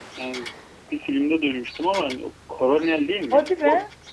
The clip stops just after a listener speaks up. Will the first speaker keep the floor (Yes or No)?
Yes